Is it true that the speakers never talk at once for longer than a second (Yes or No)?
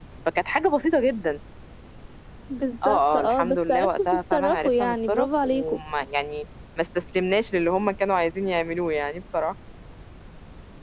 No